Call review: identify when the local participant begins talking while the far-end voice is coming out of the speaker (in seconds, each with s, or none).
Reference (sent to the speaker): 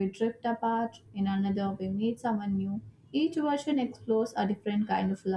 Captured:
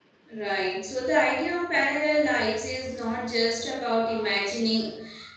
0.4 s